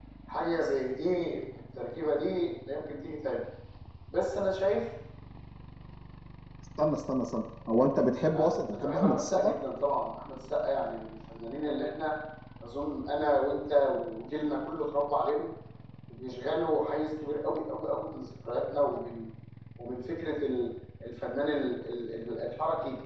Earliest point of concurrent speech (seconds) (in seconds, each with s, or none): 8.2 s